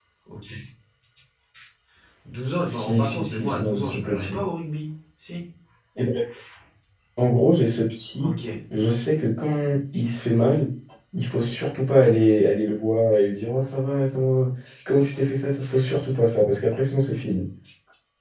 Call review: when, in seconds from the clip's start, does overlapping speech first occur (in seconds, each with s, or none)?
2.6 s